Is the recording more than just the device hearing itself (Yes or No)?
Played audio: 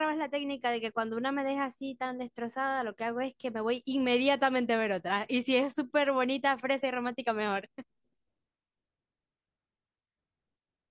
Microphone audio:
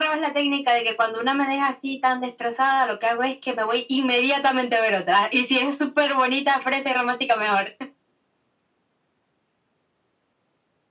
No